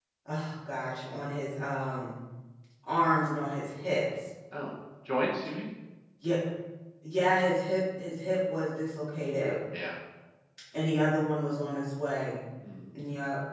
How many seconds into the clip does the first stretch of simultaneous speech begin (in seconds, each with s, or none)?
none